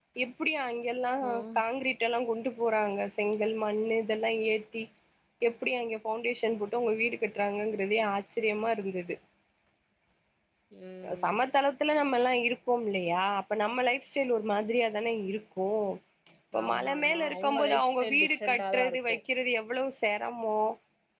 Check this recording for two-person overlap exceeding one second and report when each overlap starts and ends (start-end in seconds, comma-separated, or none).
16.6-19.2